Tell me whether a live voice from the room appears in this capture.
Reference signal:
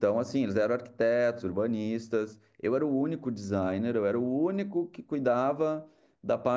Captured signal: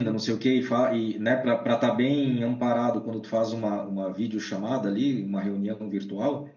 Yes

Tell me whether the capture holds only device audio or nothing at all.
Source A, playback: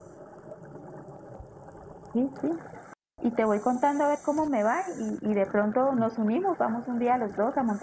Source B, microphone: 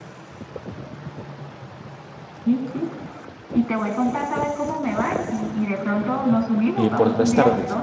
No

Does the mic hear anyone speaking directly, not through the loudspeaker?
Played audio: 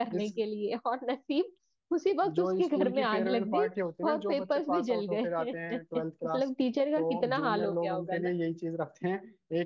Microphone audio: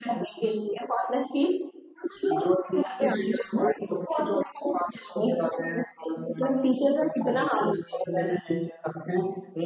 No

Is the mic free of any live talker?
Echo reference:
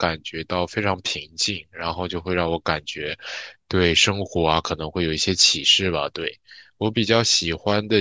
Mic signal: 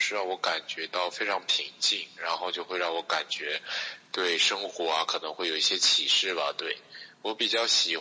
Yes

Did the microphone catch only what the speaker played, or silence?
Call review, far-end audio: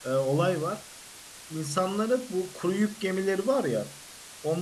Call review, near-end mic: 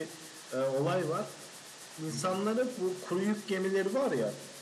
No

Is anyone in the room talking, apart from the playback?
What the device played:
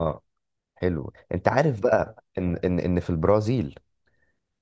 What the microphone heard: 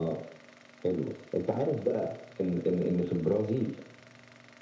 No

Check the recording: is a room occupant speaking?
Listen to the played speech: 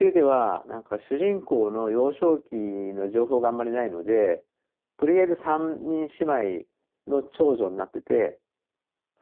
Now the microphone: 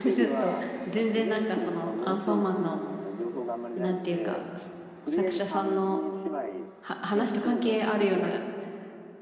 Yes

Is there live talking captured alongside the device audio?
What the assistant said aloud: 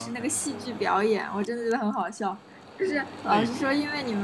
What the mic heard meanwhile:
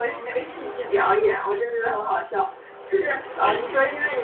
No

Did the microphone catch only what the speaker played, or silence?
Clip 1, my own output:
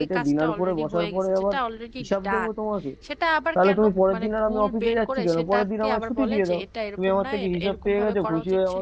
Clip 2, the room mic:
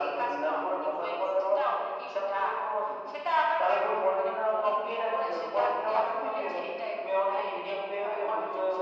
Yes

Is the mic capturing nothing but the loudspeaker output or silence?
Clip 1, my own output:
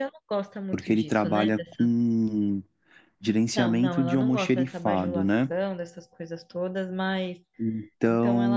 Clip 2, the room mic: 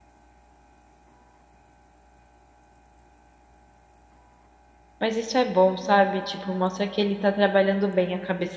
No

